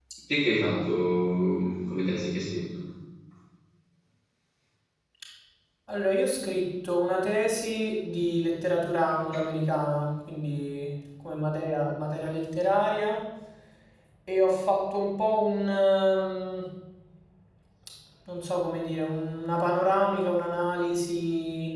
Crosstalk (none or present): none